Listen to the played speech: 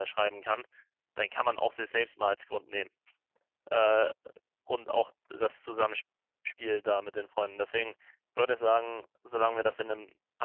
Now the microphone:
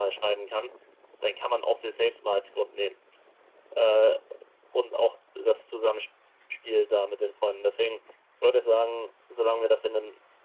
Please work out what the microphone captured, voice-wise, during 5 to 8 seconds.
echo only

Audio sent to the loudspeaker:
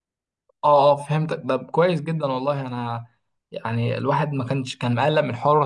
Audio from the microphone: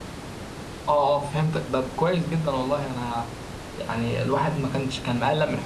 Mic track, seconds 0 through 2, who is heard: echo only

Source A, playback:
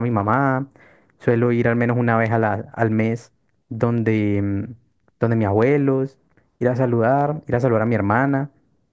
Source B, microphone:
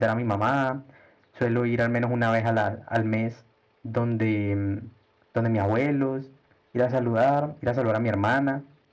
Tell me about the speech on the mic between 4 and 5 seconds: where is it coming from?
echo only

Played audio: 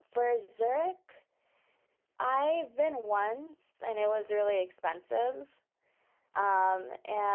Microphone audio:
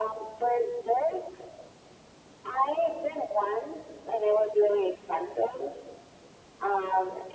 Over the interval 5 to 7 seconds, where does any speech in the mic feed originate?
echo only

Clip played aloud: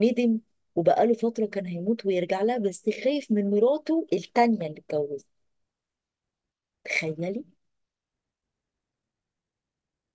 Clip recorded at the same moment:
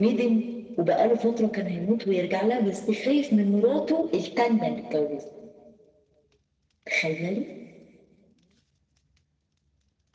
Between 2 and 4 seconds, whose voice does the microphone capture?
echo only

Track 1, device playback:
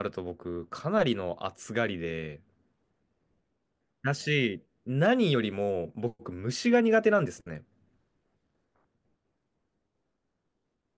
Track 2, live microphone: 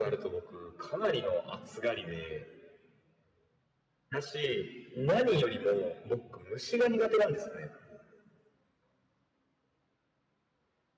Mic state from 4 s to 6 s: echo only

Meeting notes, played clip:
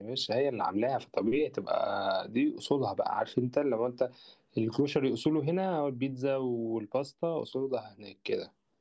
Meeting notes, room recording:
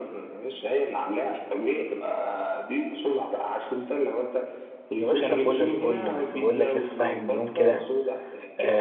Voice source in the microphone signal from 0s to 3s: echo only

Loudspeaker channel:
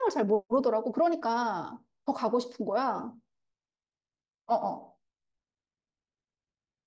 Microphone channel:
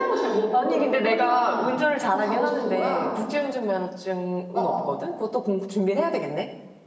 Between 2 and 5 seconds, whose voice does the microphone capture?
both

